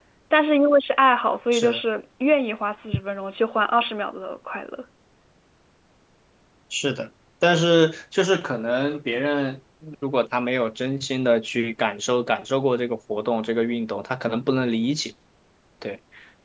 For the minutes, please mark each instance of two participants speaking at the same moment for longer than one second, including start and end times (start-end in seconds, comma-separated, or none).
none